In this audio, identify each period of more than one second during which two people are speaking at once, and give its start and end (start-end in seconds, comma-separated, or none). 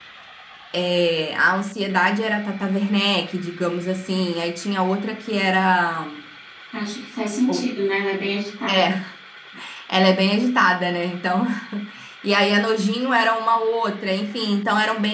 none